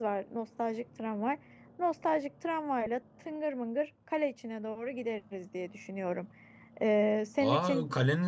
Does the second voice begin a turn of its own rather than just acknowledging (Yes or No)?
Yes